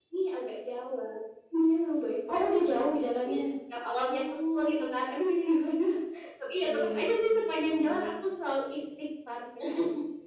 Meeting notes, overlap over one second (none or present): present